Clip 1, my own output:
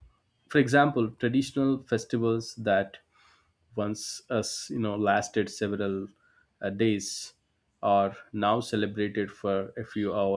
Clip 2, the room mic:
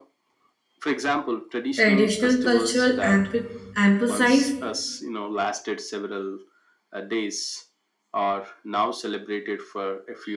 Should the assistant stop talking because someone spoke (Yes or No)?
Yes